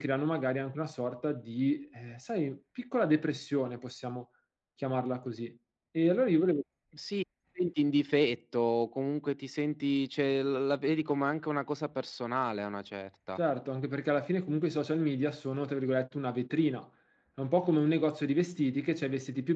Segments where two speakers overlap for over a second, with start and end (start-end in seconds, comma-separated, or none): none